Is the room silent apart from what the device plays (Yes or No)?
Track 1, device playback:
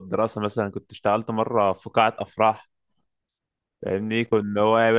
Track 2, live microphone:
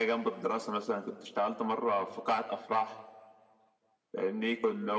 Yes